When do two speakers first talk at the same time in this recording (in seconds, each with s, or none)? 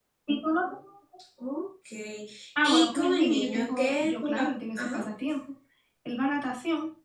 2.6 s